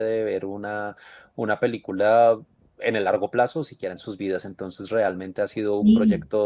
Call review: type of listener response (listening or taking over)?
listening